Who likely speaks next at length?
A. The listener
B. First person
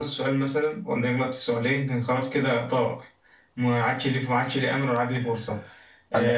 B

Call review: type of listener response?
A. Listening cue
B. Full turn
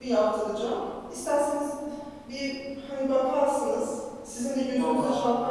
A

